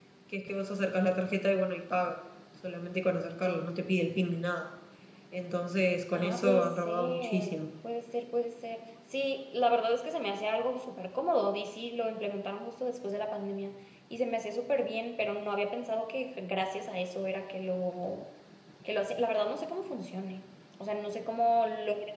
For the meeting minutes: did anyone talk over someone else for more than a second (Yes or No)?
Yes